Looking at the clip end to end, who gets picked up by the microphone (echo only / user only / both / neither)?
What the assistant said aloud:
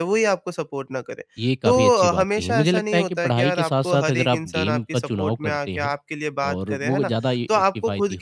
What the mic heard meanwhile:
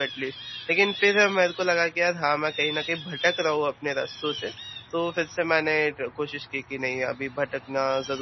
user only